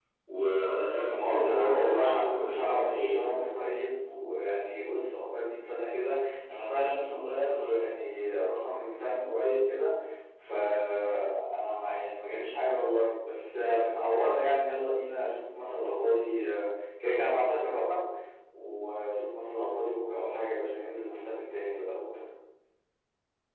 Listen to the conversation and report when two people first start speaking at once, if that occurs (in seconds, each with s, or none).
1.1 s